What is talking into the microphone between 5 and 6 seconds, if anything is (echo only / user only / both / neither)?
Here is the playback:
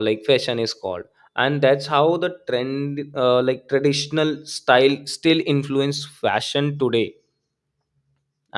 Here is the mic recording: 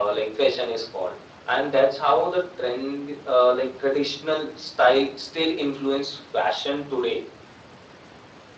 echo only